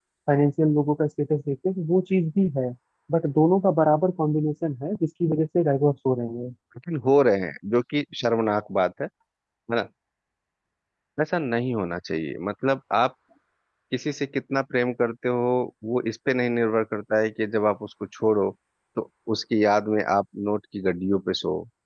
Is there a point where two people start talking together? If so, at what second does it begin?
none

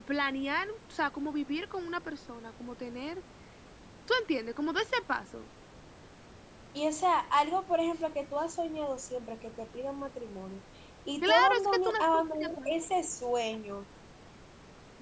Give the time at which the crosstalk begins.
11.2 s

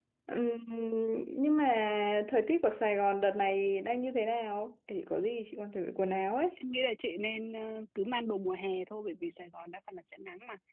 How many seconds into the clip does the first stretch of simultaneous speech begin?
none

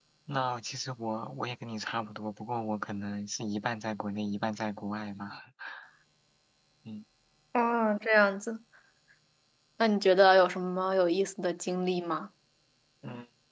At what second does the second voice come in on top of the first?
none

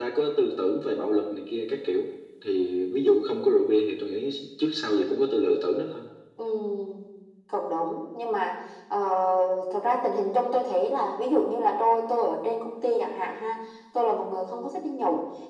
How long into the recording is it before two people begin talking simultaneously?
none

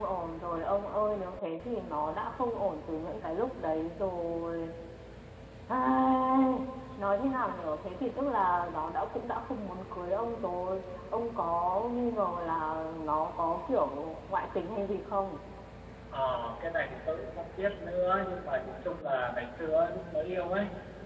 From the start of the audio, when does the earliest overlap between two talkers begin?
none

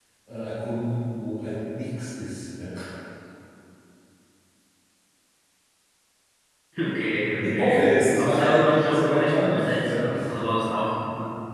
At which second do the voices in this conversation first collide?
7.4 s

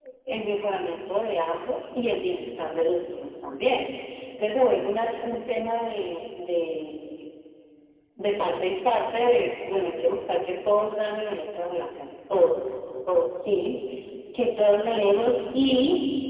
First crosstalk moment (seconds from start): none

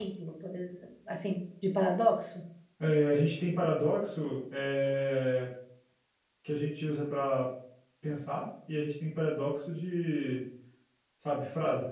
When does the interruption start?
none

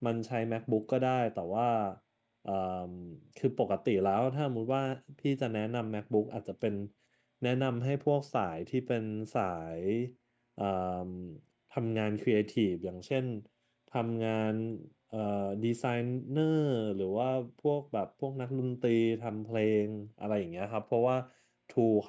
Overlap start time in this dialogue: none

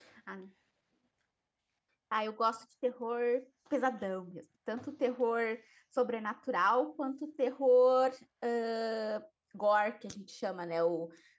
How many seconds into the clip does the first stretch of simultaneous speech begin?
none

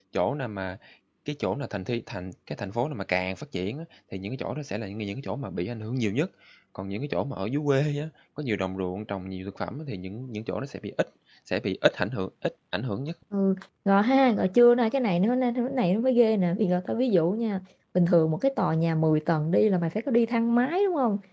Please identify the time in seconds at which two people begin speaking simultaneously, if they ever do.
none

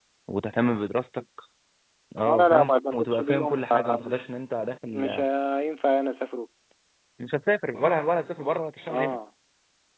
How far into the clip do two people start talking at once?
2.2 s

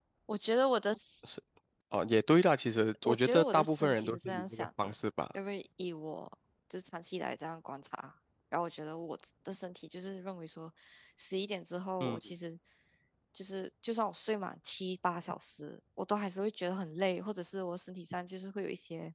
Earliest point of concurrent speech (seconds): 3.0 s

